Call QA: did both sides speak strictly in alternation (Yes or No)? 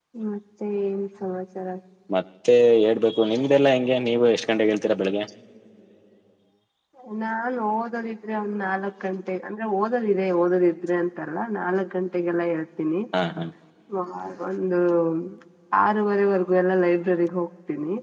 Yes